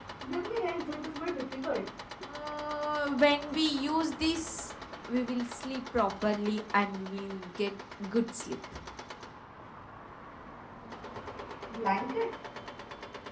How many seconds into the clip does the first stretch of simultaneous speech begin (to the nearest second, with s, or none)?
none